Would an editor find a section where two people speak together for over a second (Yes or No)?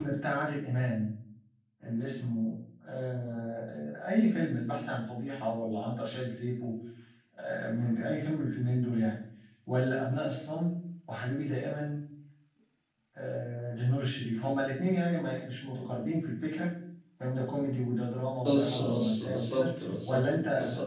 Yes